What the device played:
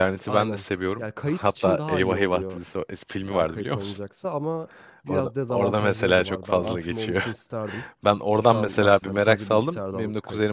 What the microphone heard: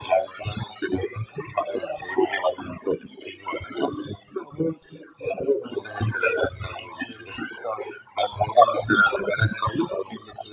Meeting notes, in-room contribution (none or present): none